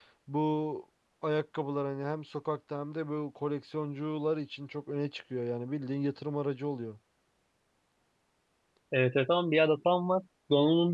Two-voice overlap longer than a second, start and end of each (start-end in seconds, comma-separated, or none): none